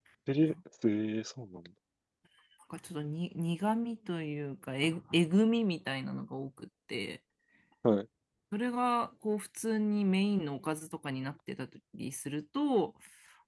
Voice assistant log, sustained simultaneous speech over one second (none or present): none